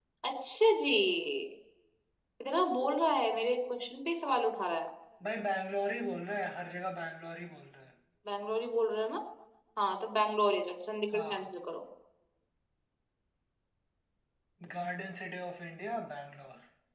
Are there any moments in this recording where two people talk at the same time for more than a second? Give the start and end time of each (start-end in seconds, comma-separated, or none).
none